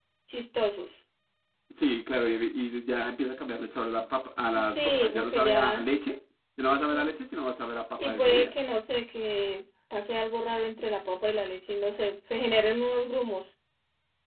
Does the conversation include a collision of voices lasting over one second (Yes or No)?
Yes